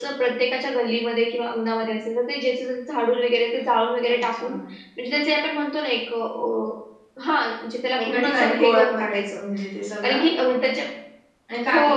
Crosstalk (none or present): present